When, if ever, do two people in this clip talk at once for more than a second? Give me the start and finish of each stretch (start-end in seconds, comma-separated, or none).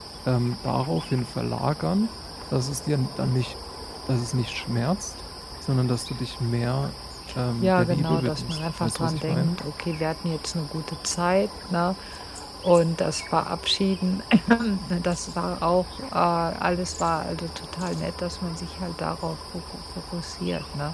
7.6-9.5